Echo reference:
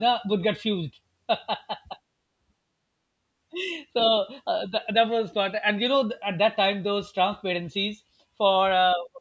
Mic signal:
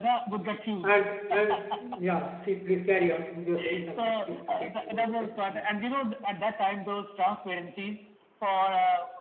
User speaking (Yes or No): Yes